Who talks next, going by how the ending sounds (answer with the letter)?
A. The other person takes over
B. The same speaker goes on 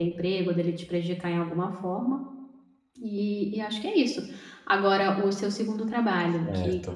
B